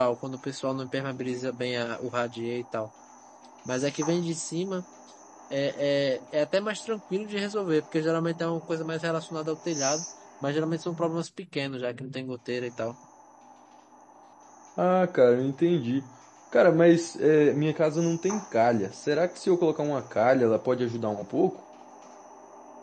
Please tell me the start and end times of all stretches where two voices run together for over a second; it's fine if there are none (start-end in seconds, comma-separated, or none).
none